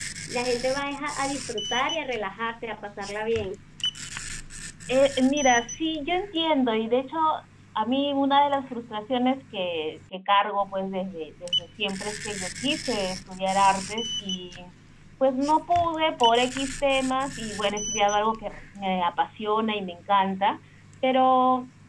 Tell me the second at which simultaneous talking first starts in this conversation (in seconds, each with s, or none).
none